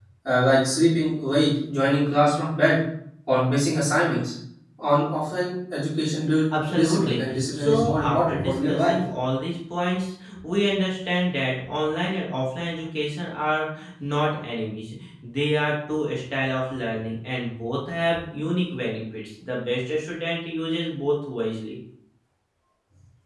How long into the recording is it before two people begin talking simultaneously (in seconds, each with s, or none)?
6.5 s